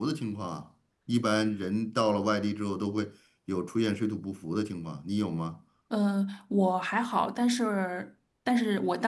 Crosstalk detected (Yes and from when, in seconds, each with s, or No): No